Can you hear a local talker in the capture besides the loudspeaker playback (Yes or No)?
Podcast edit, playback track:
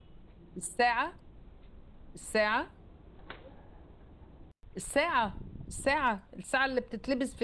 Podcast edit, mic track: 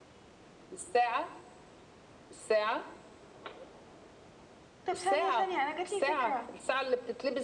Yes